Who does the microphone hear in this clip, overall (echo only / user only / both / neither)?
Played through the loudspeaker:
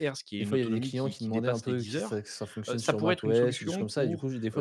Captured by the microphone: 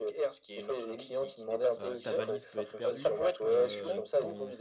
both